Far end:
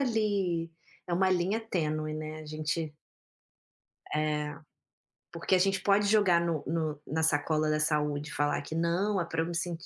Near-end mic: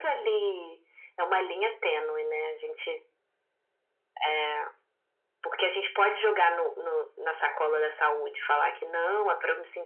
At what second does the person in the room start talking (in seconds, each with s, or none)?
none